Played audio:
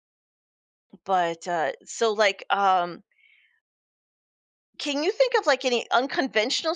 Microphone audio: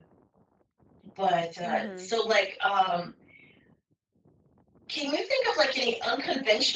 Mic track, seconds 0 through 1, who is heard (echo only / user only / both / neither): neither